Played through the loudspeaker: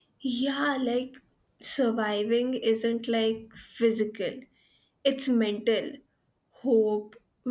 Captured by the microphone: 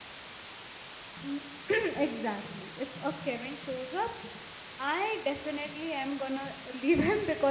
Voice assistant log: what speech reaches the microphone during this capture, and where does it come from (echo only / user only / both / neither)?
user only